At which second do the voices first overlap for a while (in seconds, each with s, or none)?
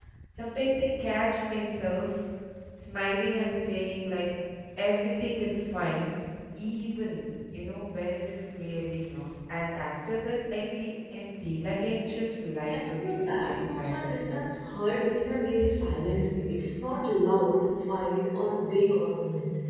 12.7 s